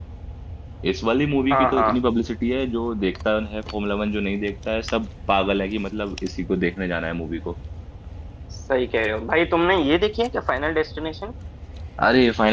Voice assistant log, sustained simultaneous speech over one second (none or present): none